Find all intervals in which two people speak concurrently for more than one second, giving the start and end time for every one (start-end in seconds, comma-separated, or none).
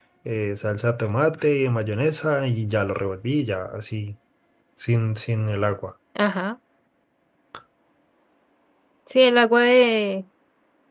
none